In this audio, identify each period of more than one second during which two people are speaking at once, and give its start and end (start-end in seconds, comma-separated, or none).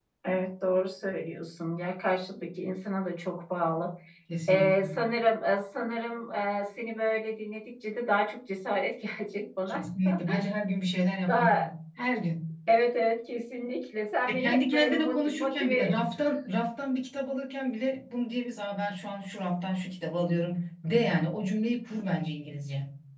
14.2-16.0